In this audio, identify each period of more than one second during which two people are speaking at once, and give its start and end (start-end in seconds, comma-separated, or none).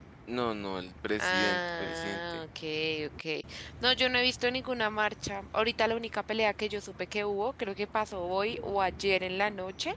1.2-2.5